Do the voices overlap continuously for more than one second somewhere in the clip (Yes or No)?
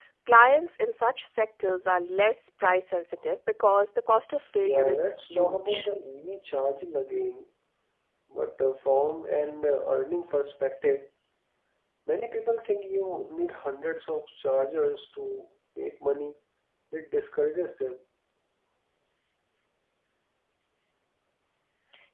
Yes